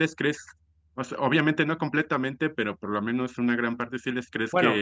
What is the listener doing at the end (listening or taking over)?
listening